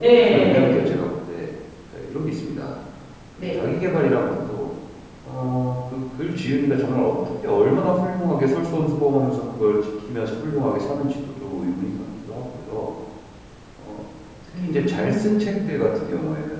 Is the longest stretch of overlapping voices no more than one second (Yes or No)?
No